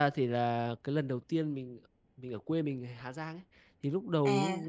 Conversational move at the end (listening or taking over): listening